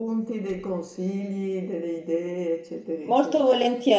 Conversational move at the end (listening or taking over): taking over